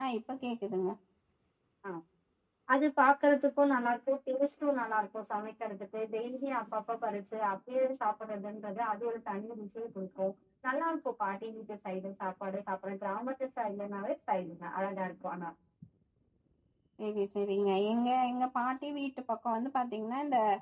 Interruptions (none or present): none